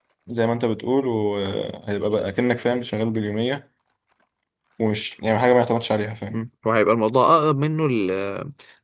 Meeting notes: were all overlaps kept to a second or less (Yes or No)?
Yes